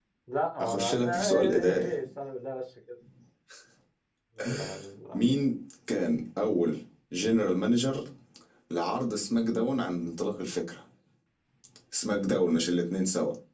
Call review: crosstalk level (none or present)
present